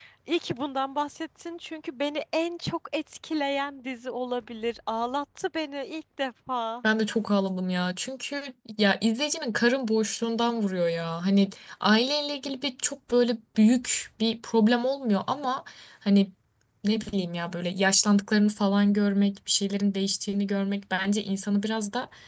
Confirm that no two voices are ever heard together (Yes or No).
Yes